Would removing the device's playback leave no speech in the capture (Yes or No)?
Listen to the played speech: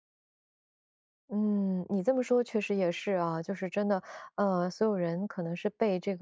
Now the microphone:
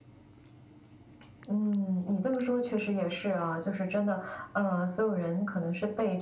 Yes